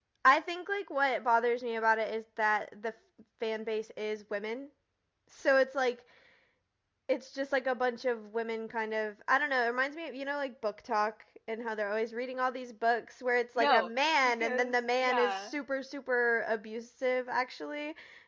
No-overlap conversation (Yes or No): No